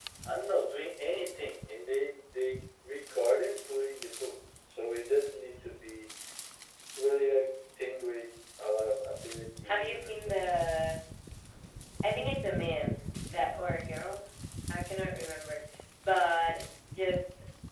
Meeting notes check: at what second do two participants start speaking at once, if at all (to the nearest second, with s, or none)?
10 s